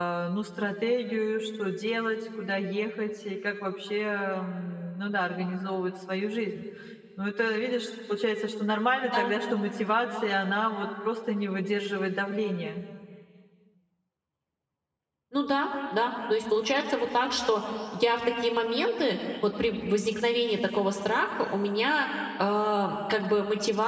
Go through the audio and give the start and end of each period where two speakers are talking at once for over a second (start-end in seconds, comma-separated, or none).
none